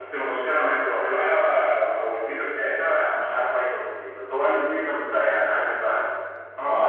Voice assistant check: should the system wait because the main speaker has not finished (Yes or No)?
No